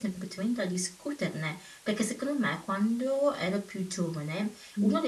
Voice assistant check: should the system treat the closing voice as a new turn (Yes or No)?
No